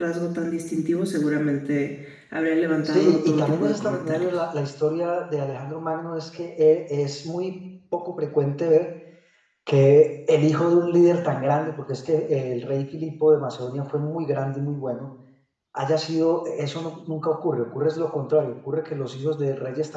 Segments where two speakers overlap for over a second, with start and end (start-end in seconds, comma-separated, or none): 2.8-4.3